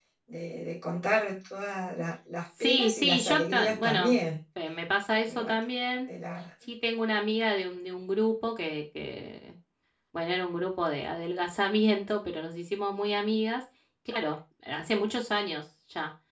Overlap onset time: 3 s

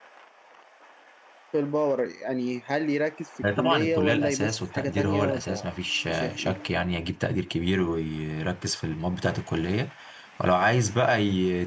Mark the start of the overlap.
4 s

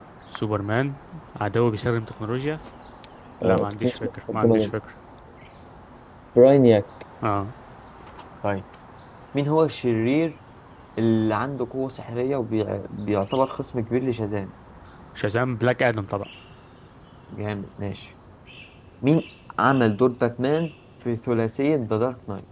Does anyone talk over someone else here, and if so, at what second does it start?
3 s

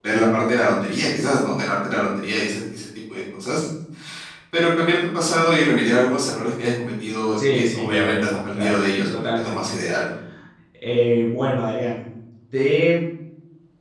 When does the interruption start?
7 s

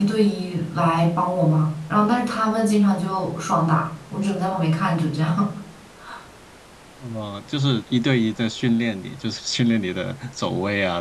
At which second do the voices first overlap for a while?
none

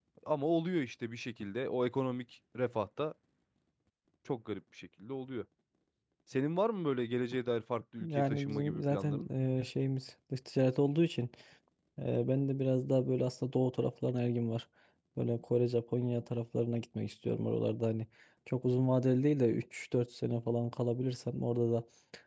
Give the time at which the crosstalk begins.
8 s

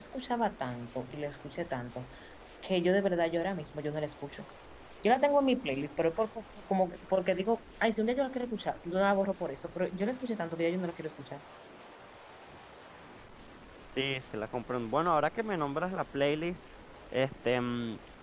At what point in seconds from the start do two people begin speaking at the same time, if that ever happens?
none

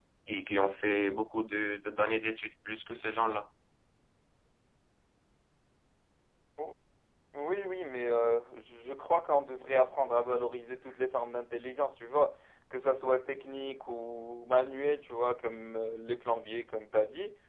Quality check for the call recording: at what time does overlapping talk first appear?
none

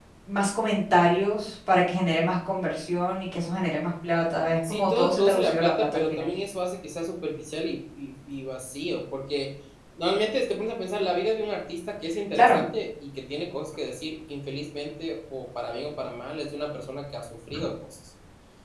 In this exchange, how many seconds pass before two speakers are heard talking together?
5 s

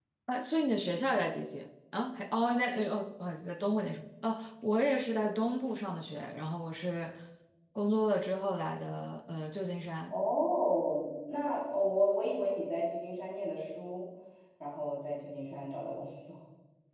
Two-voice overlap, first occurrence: none

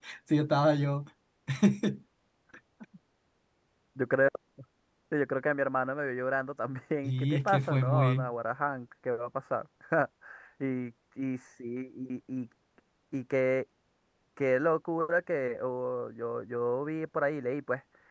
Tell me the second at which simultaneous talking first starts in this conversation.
7 s

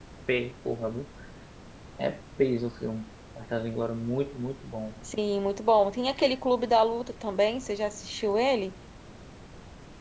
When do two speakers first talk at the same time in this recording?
none

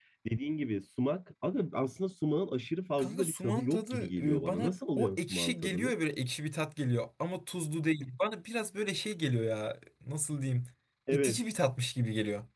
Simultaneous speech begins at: 3 s

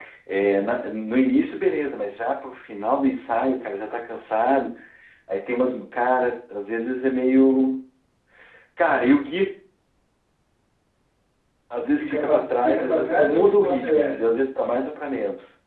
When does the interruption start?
12 s

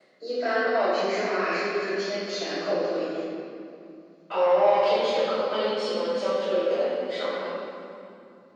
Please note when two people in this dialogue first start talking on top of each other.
none

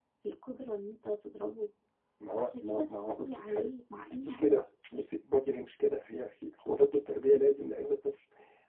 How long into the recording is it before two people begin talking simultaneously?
2 s

